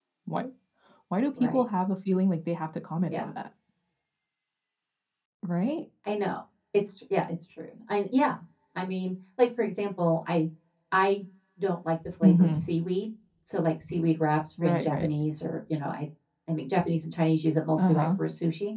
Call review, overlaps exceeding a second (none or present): none